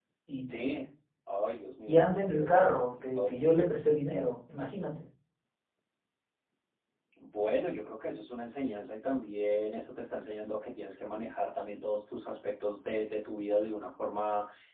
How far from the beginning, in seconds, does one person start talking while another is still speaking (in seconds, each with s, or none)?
1.9 s